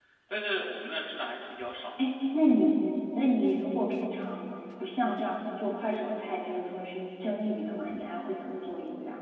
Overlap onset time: none

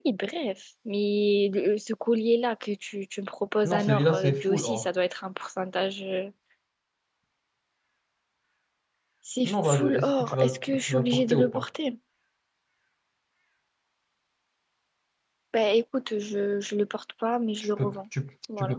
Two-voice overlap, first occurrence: 3.6 s

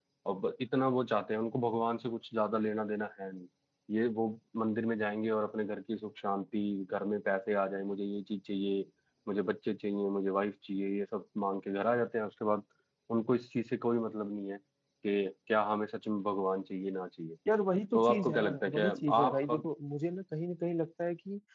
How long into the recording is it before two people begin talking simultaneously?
17.9 s

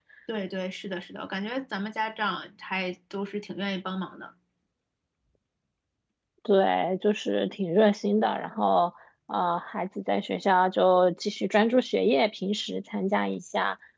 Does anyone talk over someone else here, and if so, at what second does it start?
none

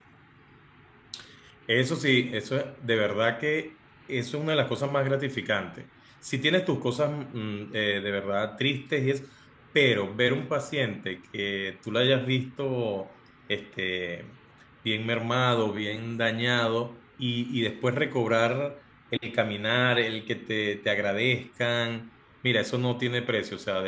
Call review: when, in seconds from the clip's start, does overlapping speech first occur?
none

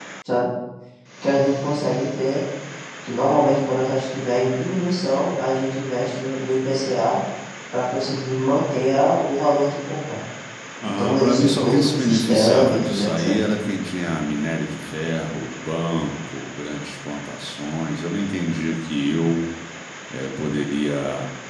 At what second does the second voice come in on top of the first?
10.8 s

